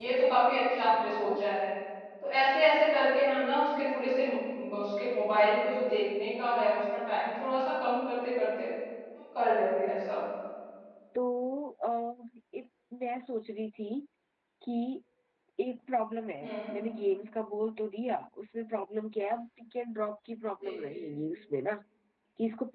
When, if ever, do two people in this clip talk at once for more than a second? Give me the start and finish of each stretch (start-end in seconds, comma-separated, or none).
none